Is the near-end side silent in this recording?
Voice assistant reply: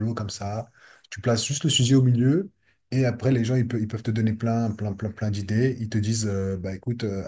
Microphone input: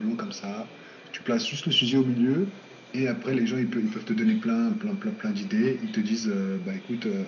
Yes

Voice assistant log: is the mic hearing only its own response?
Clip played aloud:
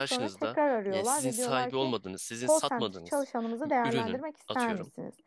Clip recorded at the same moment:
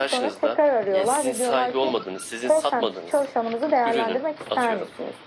Yes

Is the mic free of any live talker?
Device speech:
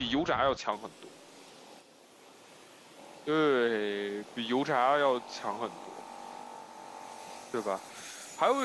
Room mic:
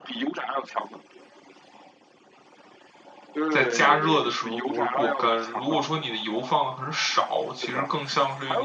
No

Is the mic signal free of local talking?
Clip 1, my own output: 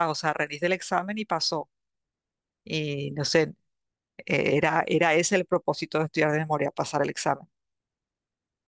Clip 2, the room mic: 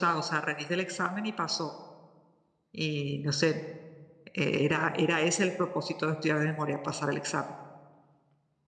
Yes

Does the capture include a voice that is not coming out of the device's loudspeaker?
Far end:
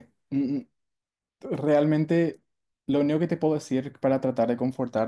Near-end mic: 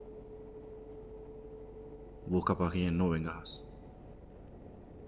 Yes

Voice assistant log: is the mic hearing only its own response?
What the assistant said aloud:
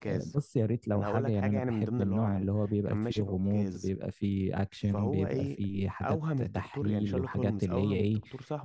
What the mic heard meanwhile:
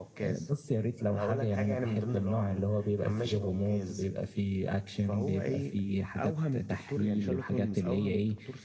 Yes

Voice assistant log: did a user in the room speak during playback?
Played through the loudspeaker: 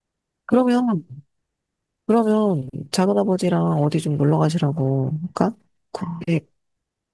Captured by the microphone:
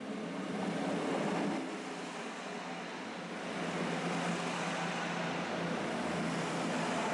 No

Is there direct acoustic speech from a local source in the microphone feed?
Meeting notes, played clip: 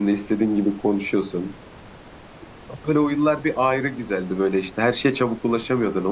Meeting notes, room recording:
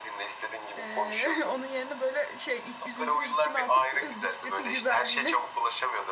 Yes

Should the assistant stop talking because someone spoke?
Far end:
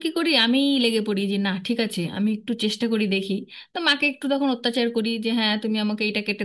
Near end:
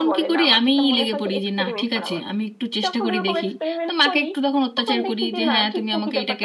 Yes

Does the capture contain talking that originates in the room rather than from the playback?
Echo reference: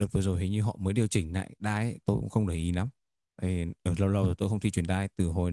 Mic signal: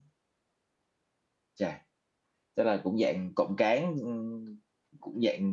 Yes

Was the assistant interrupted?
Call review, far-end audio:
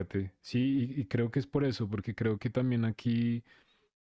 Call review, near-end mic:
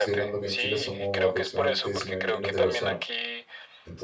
Yes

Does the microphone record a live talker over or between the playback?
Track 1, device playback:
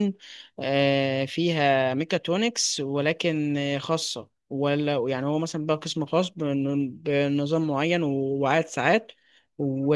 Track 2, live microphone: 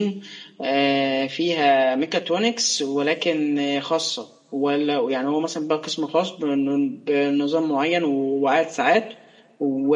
No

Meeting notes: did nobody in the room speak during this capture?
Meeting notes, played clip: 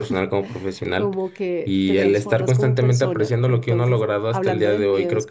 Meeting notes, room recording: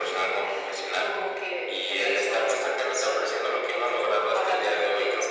Yes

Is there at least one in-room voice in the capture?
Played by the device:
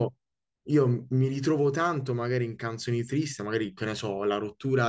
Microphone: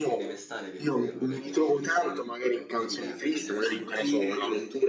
Yes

